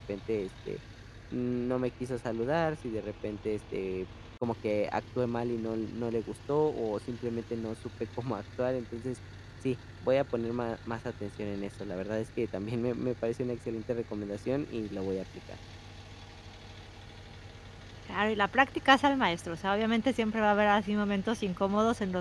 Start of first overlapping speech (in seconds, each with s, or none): none